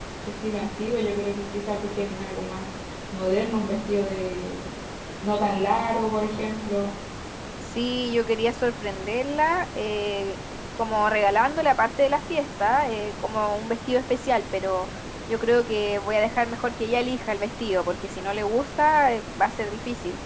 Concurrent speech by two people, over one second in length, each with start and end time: none

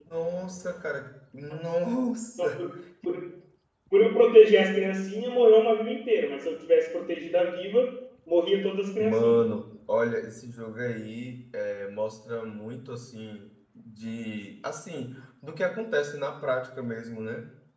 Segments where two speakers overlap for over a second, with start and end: none

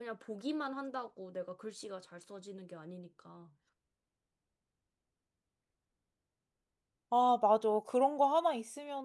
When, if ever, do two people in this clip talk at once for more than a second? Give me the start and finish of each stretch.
none

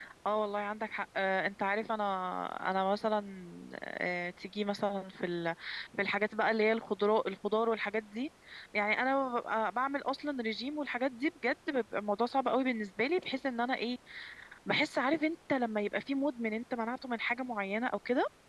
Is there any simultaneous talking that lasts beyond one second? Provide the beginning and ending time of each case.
none

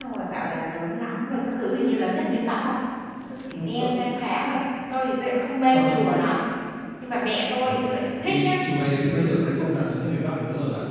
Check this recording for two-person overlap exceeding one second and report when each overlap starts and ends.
none

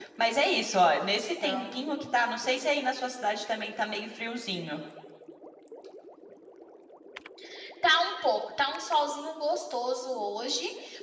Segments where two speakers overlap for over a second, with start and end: none

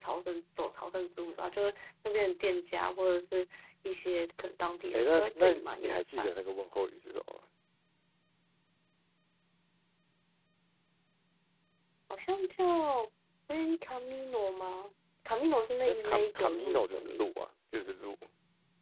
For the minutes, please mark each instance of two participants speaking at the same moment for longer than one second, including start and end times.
4.9-6.3, 15.9-17.3

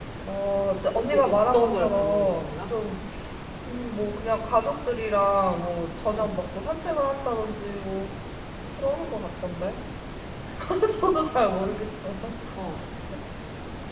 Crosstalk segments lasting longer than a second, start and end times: 0.9-2.6

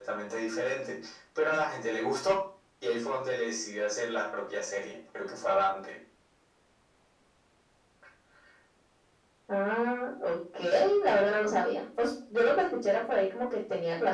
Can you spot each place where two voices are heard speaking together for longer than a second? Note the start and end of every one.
none

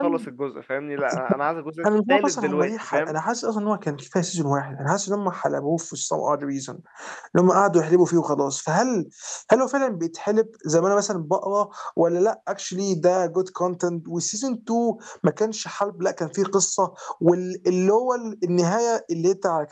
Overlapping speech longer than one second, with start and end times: 1.9-3.1

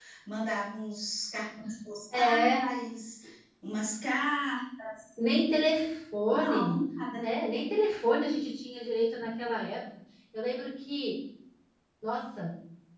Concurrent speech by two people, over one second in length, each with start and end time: none

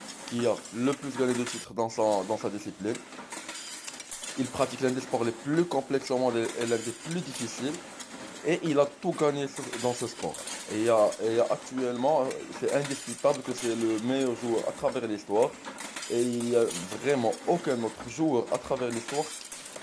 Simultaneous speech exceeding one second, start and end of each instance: none

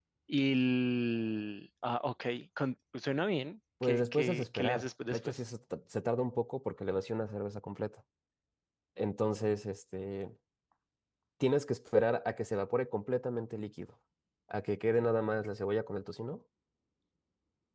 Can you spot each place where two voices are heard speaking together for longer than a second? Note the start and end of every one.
3.8-5.4

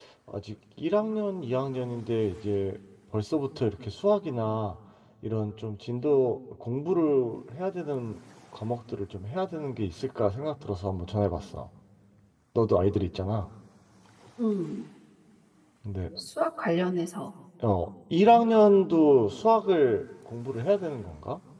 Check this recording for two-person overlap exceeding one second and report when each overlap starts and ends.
none

